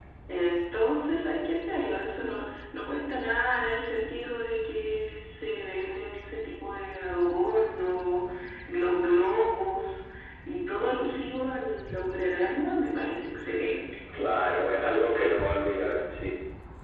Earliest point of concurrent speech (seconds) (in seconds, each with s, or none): 14.1 s